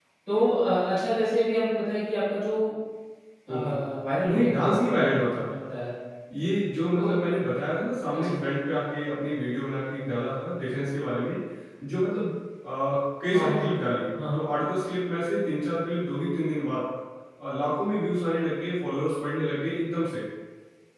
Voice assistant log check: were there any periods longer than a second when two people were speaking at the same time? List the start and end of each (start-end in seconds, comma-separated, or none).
4.3-5.5